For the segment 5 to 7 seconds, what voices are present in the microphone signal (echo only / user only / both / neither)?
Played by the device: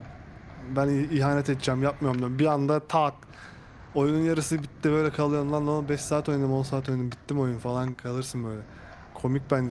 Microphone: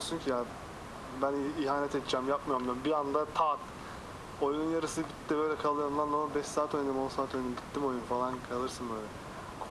echo only